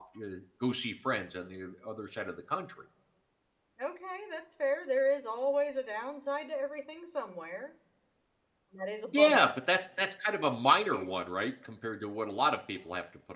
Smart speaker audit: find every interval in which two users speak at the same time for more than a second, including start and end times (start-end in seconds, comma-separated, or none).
none